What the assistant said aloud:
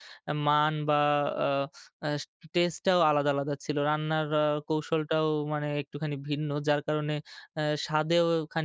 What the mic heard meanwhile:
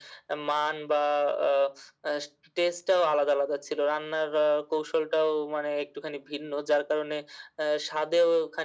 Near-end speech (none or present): none